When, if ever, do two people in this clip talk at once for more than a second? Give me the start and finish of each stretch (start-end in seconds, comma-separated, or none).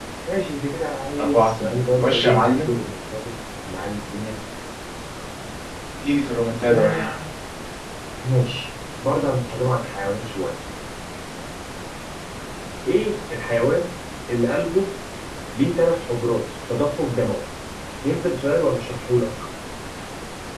1.2-2.7